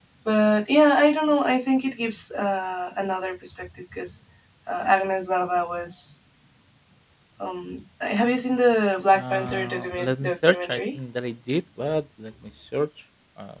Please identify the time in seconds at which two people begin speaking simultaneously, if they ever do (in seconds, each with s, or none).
9.2 s